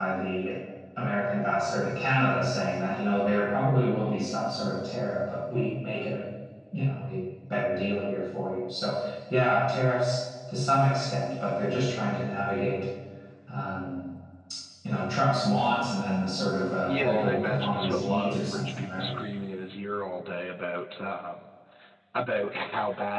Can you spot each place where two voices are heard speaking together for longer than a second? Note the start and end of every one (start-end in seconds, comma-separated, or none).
16.8-19.1